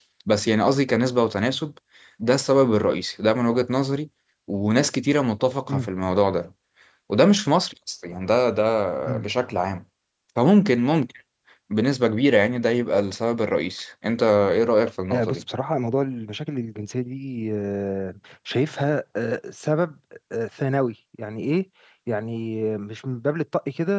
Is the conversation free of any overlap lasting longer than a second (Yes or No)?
Yes